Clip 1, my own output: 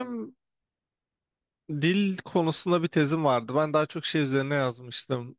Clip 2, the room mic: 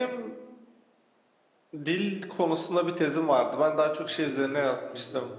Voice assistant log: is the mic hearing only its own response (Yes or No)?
No